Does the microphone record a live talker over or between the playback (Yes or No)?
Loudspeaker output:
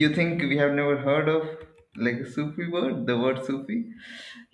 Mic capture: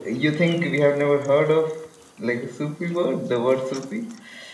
No